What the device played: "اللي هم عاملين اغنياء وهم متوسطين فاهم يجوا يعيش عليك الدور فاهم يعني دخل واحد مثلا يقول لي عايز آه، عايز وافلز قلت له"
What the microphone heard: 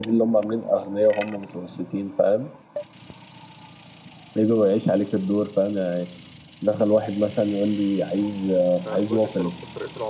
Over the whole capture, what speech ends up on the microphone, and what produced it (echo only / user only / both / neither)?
both